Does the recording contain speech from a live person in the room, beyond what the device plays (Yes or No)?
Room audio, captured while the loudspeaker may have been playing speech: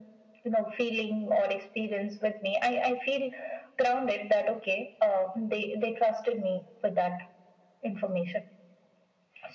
No